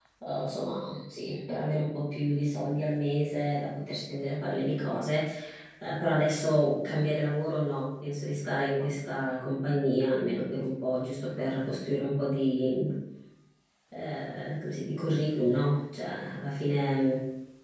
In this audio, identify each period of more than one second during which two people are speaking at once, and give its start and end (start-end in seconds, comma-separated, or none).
none